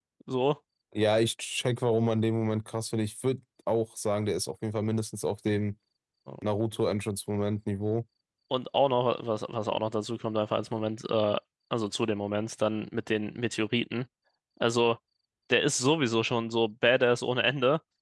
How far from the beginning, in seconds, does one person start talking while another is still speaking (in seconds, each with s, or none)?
none